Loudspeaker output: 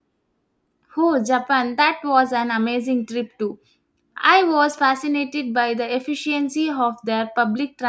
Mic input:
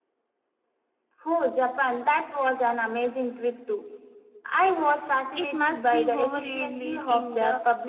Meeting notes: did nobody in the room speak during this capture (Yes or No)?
No